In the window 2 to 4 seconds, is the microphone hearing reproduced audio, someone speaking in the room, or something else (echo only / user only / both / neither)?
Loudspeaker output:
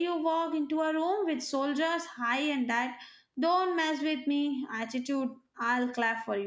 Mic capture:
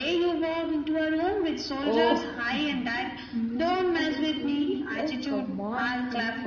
both